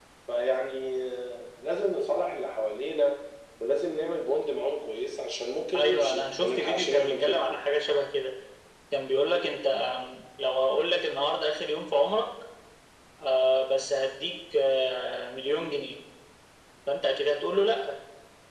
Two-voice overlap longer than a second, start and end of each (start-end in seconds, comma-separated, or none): 5.7-7.4